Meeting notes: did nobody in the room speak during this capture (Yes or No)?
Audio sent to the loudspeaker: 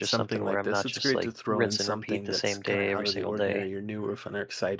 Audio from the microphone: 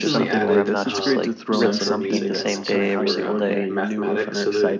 No